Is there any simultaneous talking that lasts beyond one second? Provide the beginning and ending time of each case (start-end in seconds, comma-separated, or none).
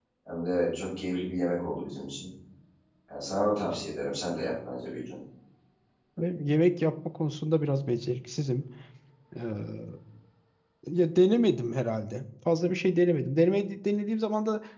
none